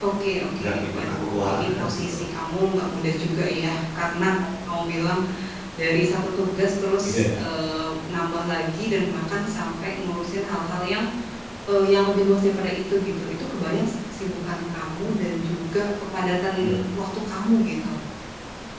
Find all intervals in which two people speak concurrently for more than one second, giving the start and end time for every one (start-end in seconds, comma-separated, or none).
0.6-2.3